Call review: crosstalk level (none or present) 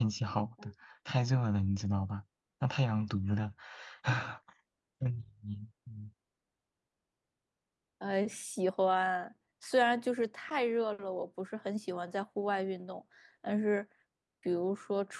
none